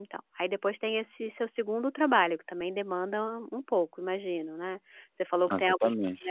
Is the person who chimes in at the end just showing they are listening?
Yes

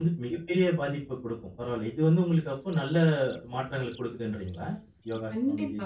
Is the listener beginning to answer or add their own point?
Yes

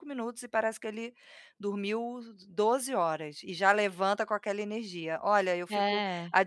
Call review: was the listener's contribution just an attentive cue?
Yes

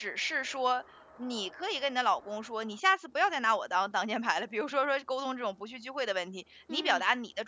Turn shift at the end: No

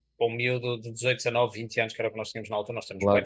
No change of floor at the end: Yes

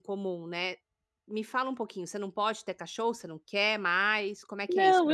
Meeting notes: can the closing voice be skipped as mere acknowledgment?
No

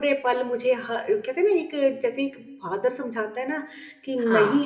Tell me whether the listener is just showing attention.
Yes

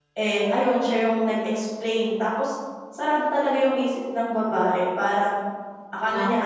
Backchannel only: Yes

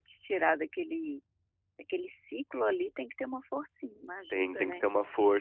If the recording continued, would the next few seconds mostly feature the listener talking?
Yes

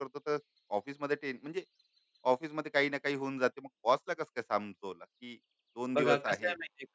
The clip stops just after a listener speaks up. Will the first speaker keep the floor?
No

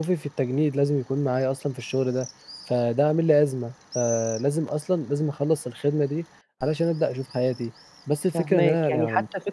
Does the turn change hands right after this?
Yes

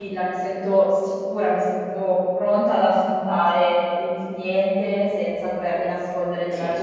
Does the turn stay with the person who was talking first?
Yes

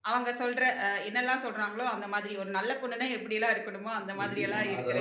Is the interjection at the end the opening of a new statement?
Yes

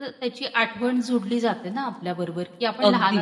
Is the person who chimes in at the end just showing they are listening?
Yes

